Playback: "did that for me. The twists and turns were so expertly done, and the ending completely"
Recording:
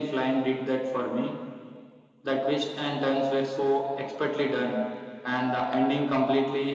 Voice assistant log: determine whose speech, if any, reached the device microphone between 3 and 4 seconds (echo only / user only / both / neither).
echo only